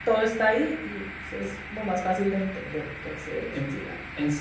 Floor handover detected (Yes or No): Yes